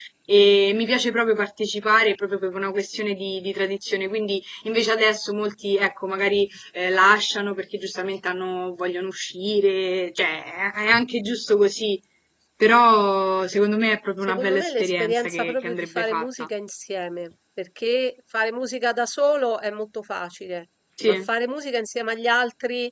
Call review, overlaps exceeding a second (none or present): present